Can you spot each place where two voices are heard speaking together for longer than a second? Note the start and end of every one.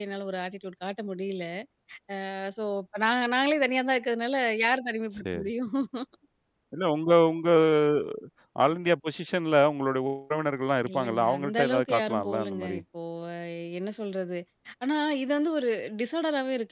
10.9-12.8

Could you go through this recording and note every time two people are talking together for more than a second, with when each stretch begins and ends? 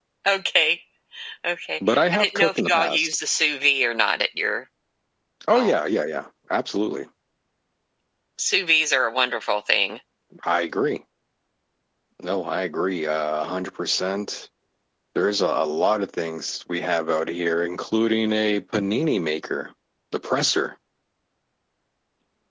1.9-3.1

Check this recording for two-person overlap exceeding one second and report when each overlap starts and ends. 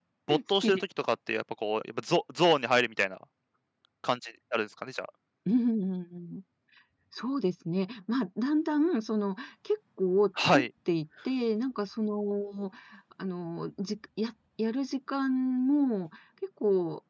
none

